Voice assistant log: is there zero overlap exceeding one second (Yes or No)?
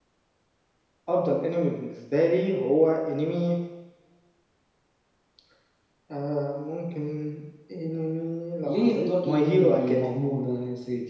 No